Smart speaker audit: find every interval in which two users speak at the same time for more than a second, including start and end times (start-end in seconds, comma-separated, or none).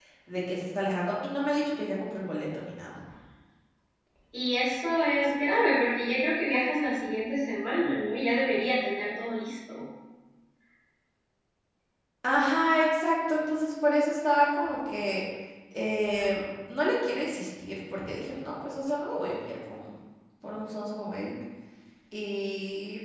none